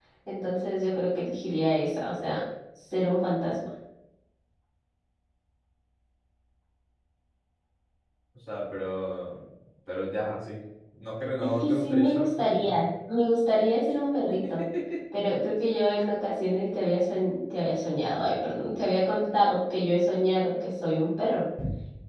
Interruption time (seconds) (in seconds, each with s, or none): 11.5 s